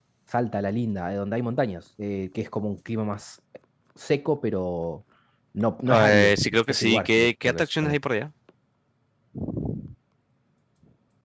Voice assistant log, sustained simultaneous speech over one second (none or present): present